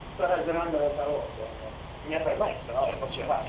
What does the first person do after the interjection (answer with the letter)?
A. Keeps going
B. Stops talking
B